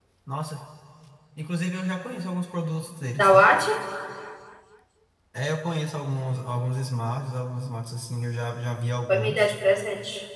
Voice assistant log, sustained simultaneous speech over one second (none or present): none